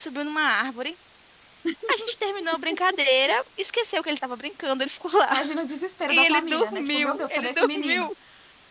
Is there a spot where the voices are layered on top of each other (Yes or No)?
Yes